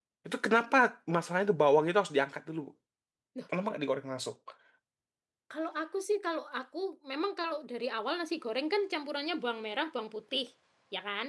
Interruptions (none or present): none